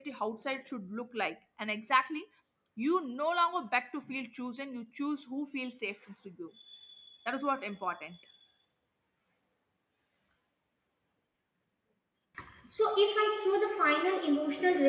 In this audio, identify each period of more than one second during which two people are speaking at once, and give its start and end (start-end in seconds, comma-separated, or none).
none